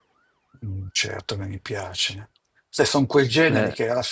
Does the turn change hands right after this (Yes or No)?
No